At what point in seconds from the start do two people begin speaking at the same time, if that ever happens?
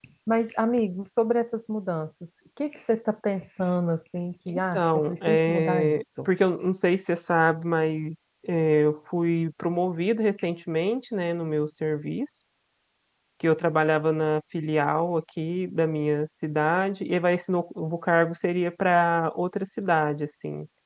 4.5 s

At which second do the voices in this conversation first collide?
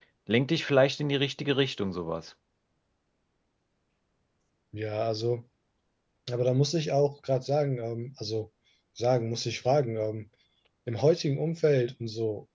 none

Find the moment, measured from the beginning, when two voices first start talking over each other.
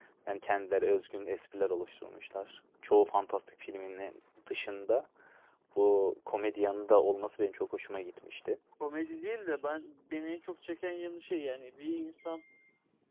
none

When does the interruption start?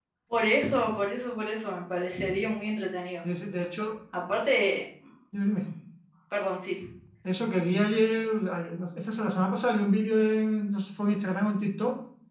none

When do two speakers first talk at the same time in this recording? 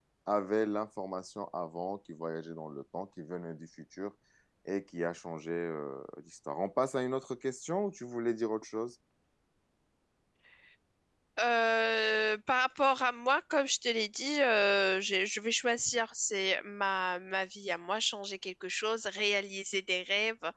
none

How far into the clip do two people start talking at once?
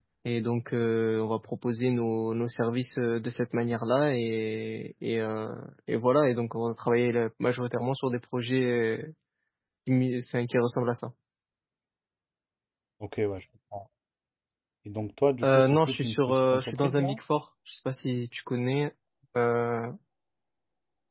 15.4 s

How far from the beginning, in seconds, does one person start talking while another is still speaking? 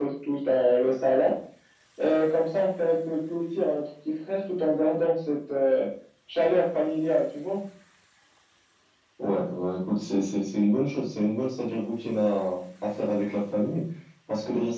none

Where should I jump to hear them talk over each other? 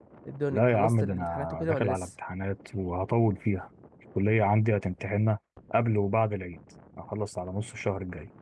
0.5 s

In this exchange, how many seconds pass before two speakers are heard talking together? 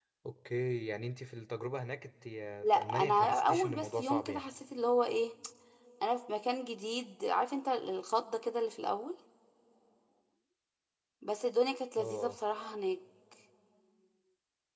2.8 s

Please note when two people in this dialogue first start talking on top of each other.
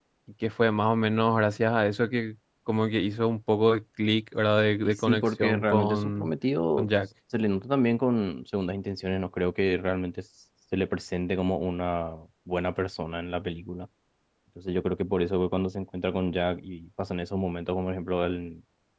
4.8 s

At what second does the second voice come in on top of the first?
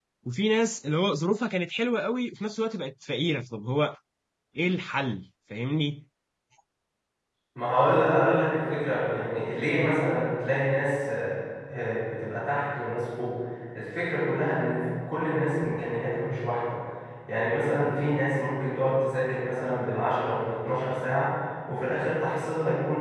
none

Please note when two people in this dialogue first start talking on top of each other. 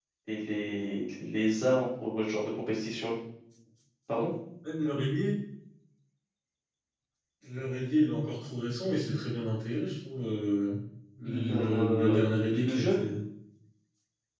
11.2 s

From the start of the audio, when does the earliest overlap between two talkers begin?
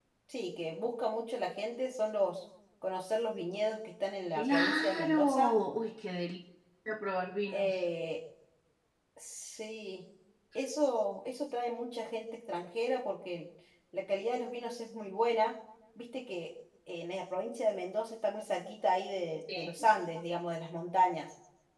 4.3 s

